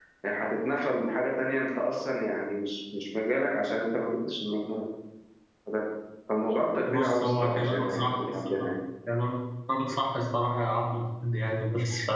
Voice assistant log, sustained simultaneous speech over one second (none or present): present